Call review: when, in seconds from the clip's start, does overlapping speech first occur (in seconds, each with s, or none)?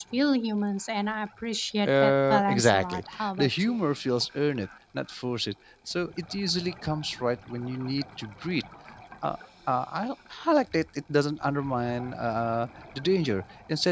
1.8 s